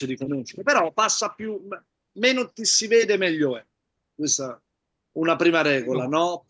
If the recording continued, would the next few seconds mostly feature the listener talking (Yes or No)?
No